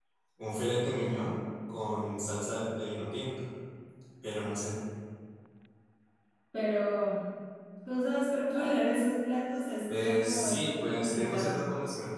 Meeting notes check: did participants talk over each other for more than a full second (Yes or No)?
Yes